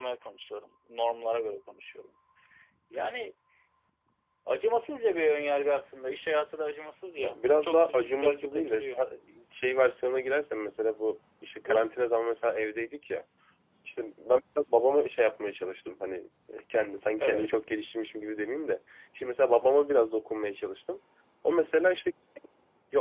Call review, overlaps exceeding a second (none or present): present